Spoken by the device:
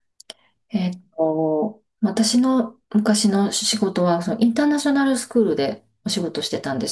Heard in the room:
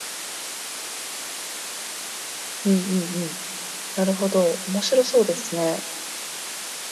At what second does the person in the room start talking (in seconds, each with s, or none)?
2.6 s